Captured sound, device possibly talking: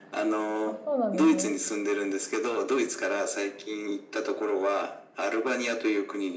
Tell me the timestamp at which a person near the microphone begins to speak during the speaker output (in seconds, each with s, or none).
0.7 s